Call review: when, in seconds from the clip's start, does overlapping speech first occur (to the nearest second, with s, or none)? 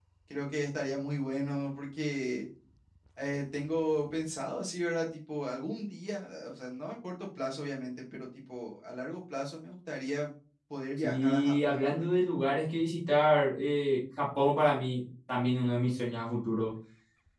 11 s